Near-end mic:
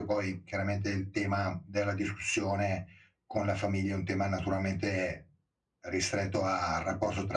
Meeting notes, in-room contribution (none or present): none